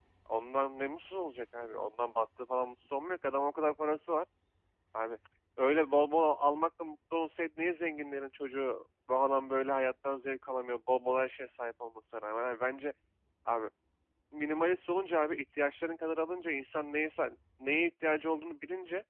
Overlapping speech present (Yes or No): No